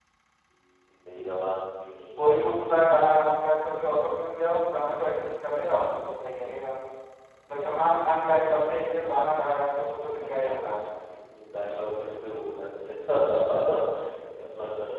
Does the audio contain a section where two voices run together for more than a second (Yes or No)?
No